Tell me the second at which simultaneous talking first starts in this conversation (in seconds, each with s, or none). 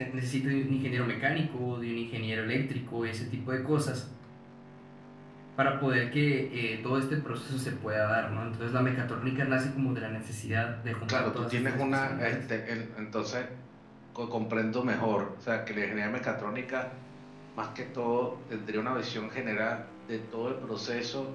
11.1 s